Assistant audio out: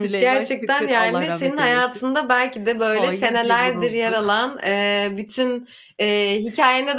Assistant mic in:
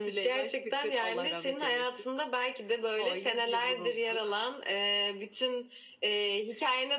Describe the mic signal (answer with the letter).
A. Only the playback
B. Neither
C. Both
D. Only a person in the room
A